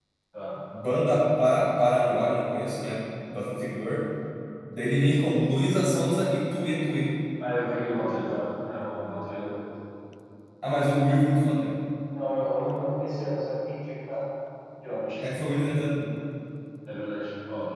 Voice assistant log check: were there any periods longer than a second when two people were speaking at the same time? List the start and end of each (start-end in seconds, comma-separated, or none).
none